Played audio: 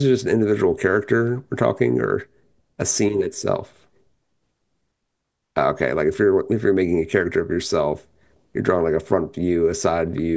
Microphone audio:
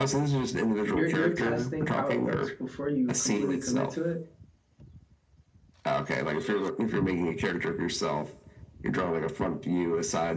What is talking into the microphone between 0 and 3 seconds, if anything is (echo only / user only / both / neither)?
both